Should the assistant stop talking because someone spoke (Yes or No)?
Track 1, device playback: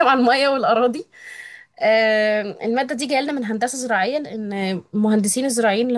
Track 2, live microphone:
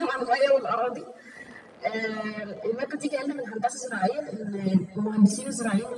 No